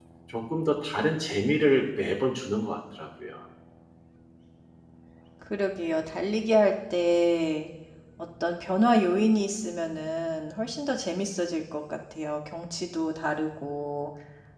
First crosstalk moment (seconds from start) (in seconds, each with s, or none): none